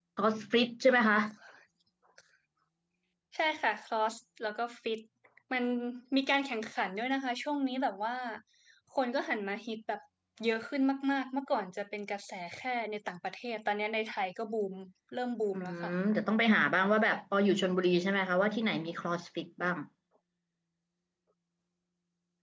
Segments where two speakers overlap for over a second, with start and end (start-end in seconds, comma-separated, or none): none